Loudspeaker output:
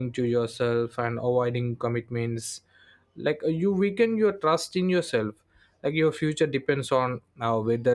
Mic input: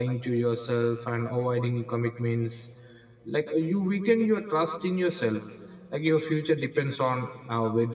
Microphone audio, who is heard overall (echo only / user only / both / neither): echo only